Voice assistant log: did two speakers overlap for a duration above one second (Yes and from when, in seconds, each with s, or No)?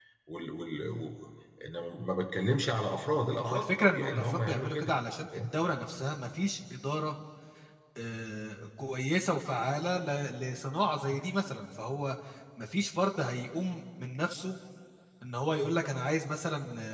Yes, from 3.4 s